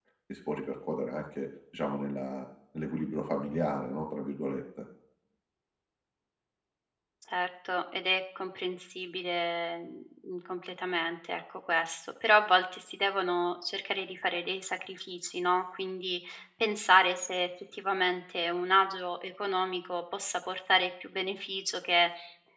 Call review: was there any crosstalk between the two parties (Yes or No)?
No